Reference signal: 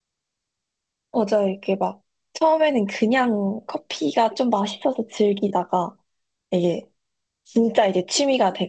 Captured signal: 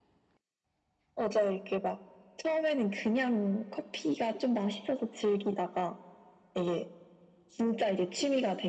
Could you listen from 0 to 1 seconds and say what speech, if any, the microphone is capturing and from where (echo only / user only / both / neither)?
neither